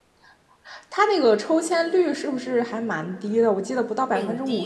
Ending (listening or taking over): taking over